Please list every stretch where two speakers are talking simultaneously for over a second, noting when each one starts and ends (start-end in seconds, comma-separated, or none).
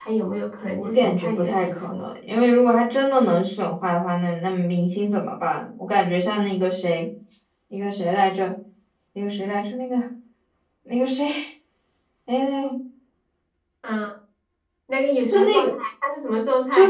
0.8-2.1